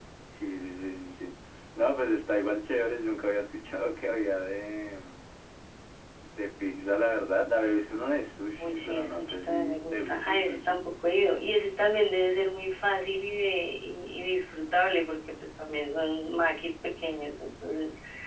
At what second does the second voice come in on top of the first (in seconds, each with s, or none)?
8.6 s